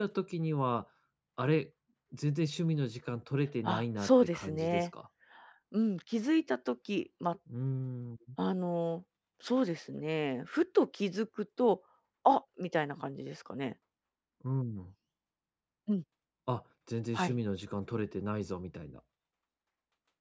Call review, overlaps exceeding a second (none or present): present